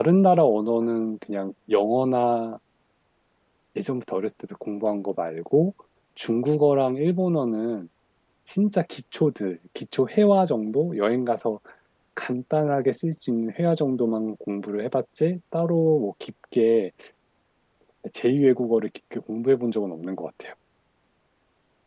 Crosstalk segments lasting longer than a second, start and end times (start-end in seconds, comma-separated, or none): none